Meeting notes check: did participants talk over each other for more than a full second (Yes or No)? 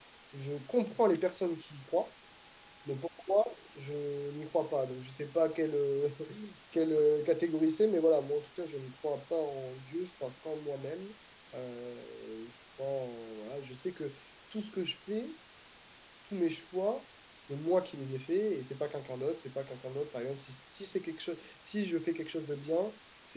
No